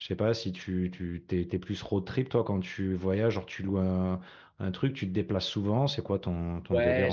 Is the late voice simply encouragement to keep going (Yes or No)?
No